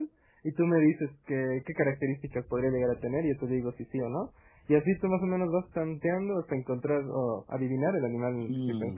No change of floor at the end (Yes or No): No